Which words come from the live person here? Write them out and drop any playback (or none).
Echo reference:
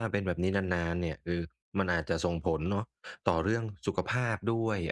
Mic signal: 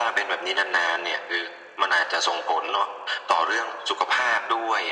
none